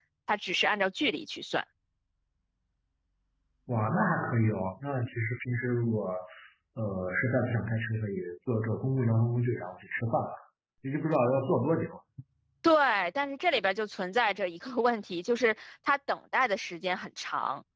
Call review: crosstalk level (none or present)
none